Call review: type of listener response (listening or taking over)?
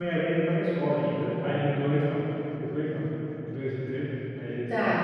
taking over